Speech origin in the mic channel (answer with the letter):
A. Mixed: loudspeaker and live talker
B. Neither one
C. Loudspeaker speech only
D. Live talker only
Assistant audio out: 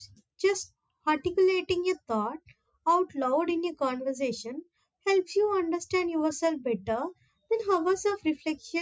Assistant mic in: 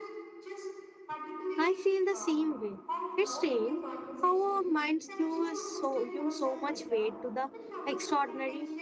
A